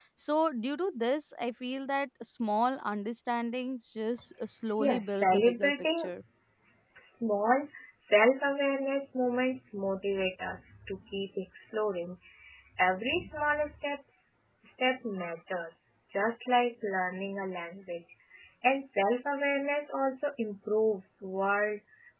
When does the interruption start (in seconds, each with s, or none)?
4.8 s